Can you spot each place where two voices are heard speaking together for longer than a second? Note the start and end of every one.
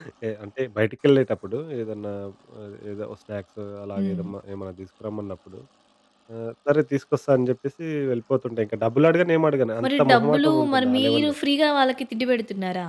9.8-11.3

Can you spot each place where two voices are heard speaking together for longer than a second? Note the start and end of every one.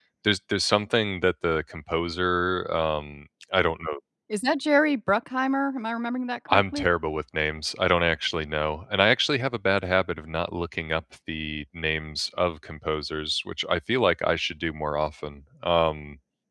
none

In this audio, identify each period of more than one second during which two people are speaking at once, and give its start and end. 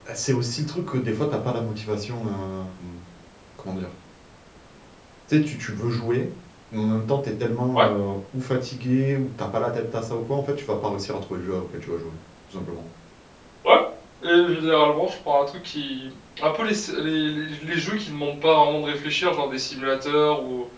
none

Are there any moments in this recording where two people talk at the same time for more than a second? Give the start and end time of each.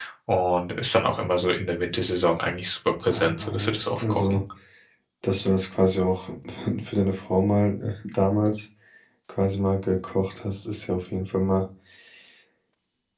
3.1-4.4

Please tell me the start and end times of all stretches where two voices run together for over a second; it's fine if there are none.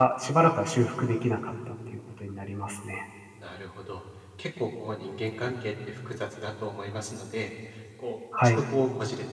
none

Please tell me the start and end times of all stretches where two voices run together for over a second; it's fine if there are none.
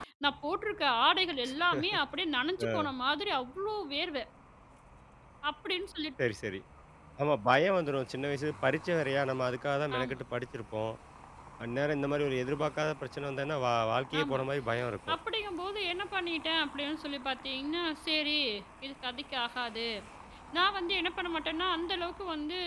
none

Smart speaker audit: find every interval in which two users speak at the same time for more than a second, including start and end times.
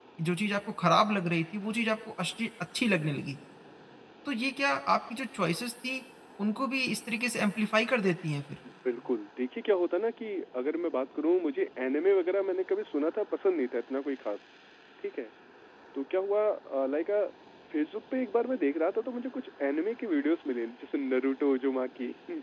none

